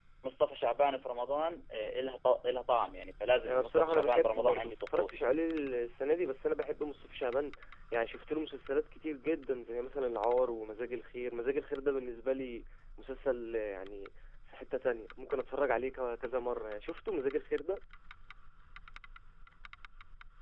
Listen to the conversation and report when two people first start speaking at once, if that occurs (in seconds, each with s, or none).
3.4 s